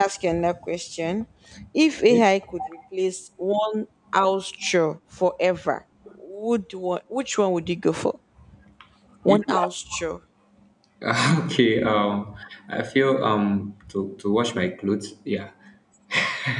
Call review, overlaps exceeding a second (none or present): none